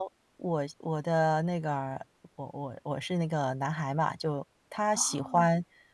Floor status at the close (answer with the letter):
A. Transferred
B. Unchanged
B